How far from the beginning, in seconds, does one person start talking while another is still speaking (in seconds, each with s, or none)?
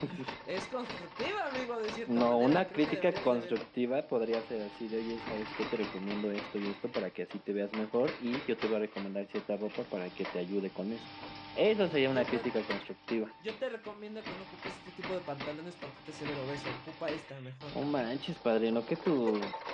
2.1 s